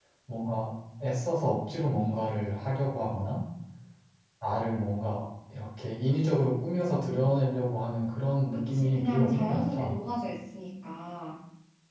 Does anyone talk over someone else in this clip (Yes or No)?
Yes